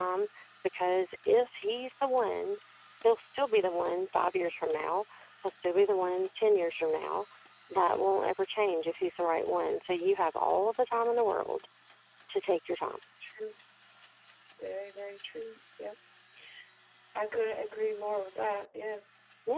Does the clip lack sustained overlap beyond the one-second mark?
Yes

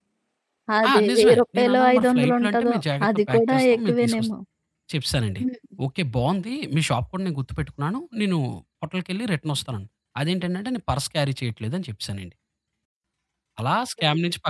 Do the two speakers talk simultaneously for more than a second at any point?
Yes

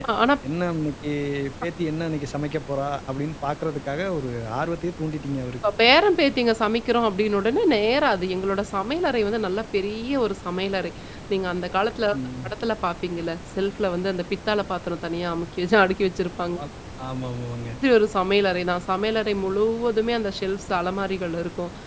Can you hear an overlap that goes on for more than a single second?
No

